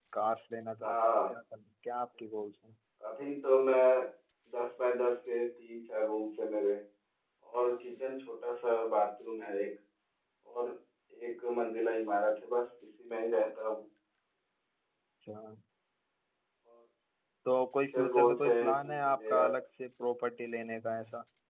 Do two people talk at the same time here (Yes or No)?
Yes